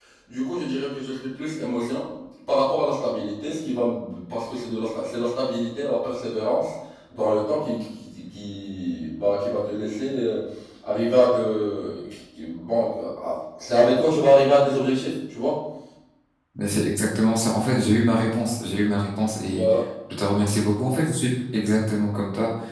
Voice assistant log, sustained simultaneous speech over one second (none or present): none